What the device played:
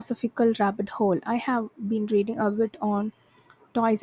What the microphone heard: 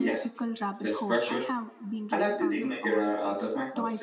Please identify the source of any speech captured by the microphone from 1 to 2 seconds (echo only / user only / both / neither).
both